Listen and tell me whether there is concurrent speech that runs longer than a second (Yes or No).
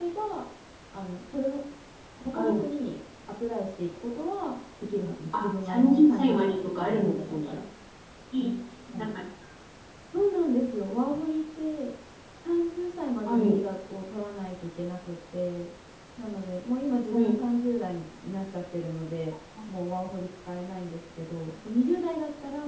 Yes